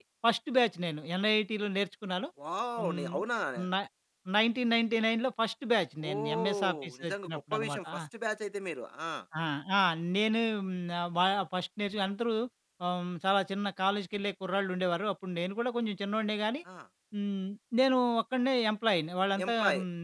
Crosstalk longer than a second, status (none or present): present